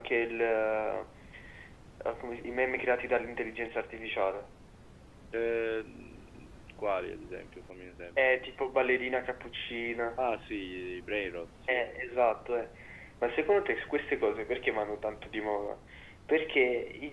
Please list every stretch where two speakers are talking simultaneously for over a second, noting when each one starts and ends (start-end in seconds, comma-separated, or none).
none